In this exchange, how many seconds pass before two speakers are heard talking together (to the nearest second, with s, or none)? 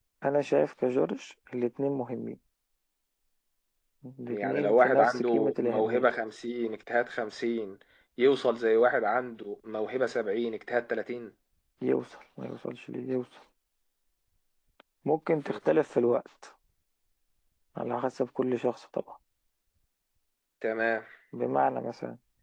4 s